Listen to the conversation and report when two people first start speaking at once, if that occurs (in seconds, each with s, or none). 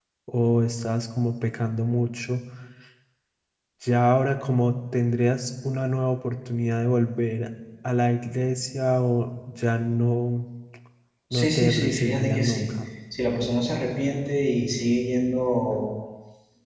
11.3 s